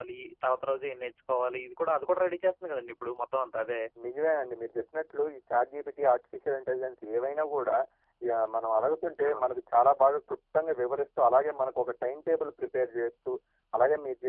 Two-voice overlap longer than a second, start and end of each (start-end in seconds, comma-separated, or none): none